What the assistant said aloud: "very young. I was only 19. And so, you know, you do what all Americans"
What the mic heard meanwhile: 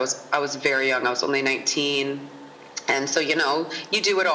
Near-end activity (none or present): none